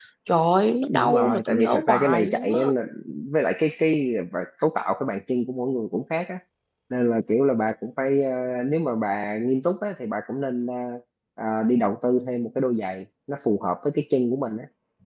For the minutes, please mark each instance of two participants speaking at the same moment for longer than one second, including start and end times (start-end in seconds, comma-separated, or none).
0.9-2.7